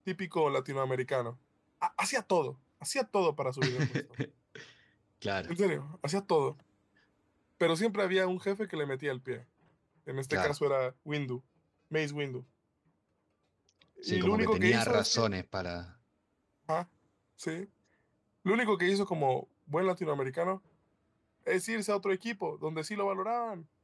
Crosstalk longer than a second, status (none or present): present